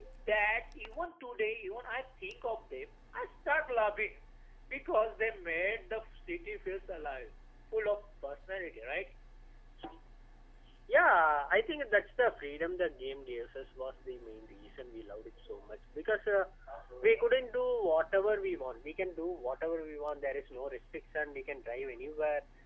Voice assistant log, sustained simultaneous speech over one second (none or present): none